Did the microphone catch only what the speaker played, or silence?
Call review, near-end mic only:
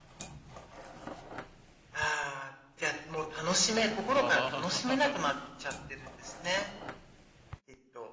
No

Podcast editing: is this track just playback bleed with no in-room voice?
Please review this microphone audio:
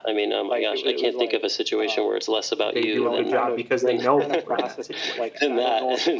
No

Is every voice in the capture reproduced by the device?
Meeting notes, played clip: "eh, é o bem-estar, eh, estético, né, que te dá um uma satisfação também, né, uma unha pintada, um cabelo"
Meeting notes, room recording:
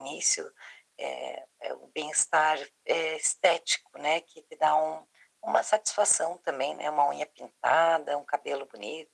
Yes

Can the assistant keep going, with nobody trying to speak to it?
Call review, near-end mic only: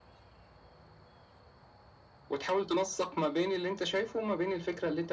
Yes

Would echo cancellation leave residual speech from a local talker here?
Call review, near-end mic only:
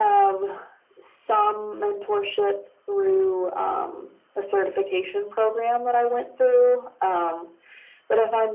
No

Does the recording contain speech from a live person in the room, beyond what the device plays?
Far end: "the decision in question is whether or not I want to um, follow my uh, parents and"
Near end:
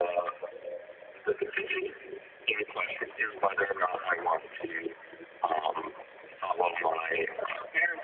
No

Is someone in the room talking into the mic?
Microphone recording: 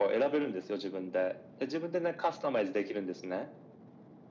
No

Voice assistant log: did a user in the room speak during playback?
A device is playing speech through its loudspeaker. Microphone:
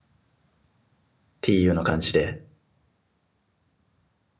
Yes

